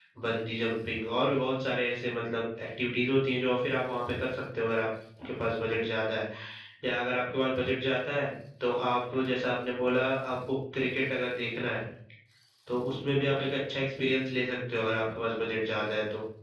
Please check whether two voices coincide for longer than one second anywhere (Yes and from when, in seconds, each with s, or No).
No